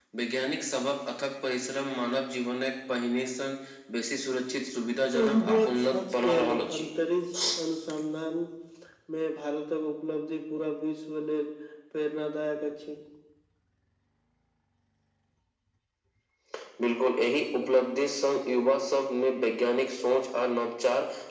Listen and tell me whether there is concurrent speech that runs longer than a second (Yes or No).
Yes